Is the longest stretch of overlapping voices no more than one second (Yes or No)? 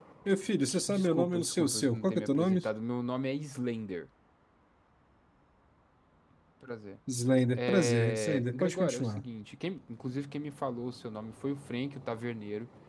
No